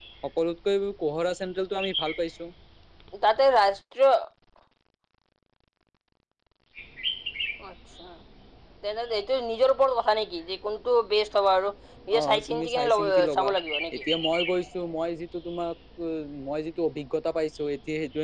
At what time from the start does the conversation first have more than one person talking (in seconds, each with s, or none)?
12.1 s